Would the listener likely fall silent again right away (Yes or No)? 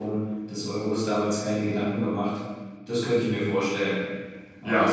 No